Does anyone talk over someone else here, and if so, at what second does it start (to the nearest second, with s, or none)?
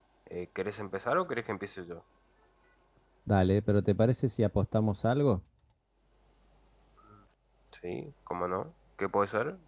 none